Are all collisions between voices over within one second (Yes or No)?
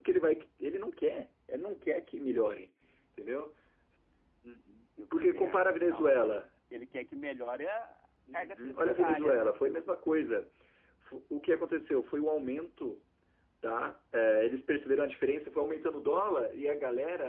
No